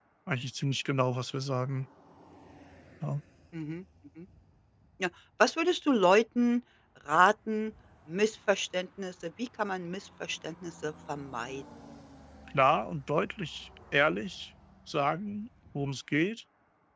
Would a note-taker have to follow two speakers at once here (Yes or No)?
No